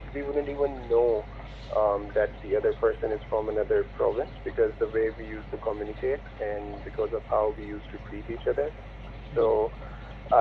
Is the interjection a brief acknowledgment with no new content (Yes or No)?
Yes